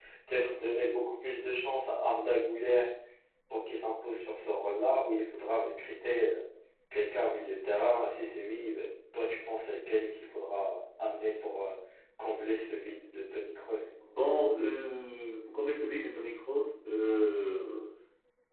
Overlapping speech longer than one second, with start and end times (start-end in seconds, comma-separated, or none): none